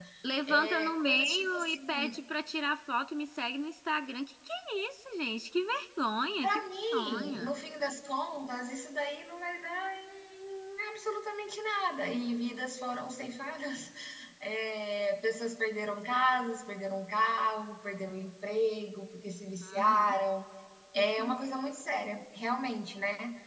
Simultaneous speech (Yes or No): Yes